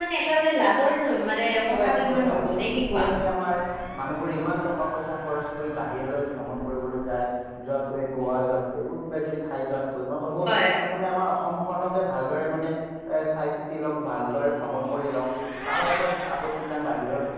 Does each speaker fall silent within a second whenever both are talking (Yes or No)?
No